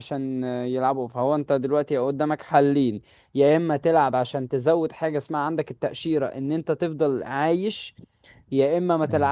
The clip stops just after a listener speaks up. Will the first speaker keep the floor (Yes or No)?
Yes